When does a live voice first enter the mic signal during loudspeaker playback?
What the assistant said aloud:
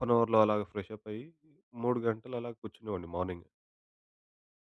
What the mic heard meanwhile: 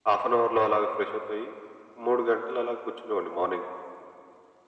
none

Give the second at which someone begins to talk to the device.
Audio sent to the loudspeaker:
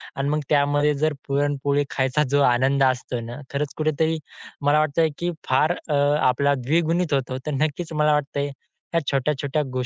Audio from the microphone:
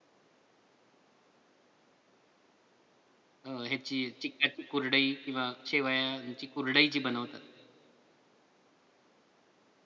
3.4 s

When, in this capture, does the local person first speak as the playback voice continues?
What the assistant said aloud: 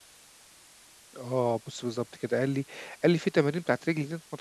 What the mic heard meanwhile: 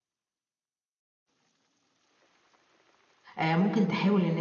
3.4 s

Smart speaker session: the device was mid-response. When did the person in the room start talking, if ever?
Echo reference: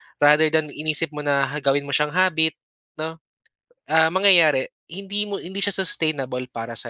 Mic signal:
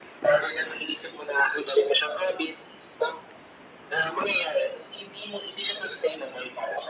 none

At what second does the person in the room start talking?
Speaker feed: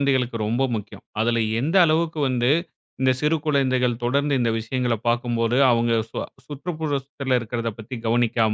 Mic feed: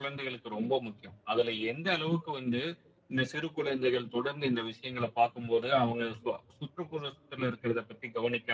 none

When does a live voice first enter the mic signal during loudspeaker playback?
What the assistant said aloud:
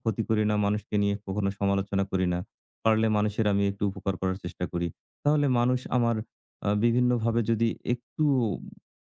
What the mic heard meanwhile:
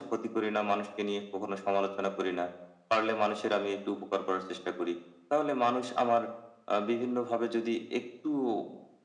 none

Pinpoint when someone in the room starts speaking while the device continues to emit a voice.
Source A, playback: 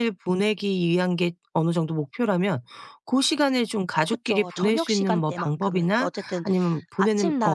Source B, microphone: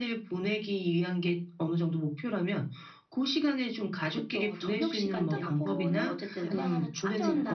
5.2 s

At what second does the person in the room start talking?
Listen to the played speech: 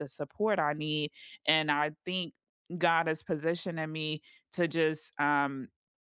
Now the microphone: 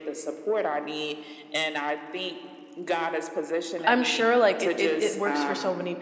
3.8 s

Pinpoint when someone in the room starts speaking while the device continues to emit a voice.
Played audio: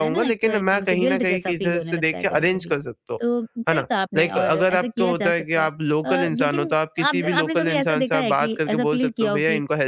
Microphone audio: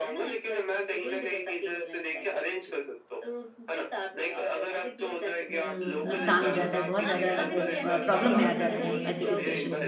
5.5 s

